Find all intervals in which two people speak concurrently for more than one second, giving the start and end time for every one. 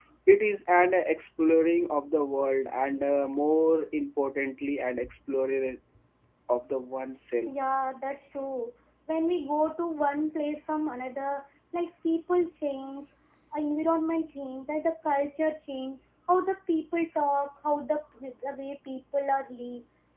none

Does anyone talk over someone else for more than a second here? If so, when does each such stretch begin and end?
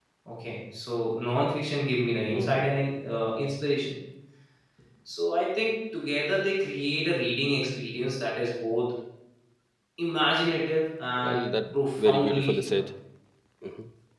11.2-12.8

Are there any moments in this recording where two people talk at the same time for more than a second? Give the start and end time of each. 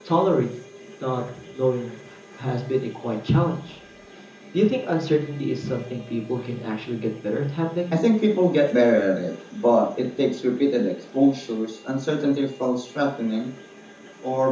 none

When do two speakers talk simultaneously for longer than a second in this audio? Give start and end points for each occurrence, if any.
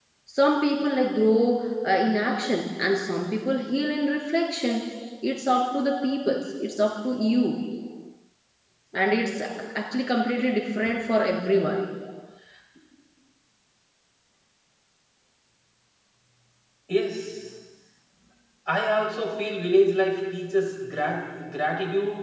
none

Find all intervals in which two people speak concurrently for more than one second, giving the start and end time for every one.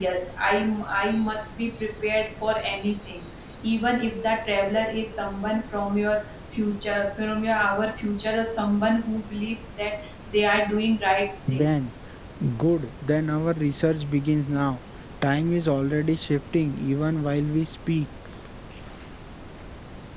none

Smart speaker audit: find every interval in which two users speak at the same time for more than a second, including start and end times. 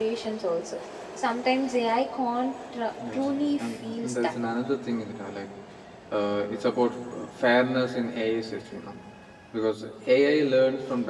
3.1-4.4

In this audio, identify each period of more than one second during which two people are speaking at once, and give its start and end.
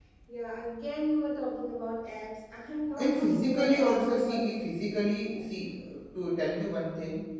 3.0-4.6

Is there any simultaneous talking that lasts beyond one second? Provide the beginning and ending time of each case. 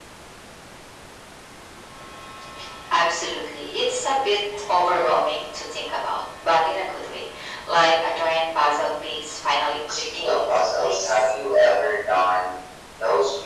9.9-11.3

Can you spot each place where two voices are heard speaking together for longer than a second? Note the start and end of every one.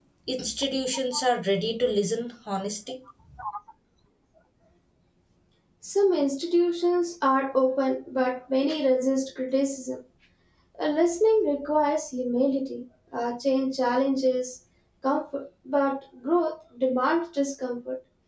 none

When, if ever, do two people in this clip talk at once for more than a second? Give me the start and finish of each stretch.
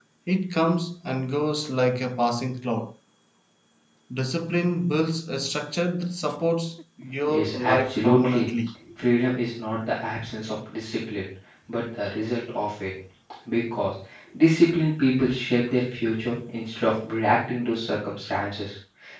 7.3-8.5

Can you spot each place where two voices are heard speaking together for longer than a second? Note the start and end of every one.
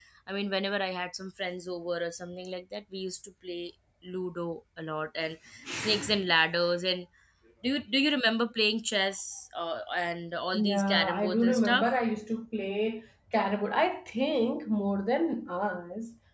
10.5-11.9

